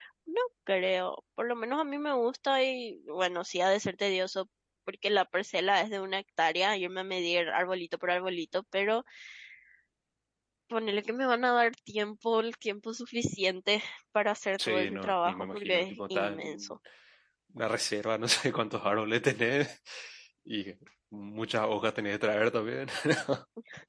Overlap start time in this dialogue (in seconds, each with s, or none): 14.6 s